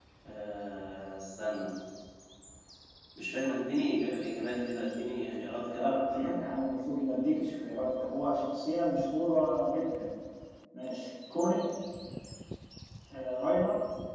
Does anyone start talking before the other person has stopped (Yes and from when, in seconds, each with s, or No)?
Yes, from 4.4 s